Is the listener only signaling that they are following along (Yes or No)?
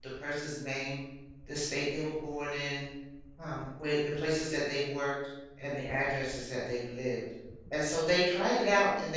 Yes